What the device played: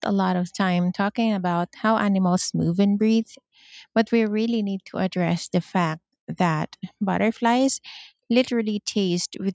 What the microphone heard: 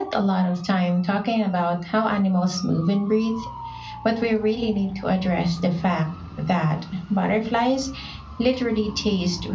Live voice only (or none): none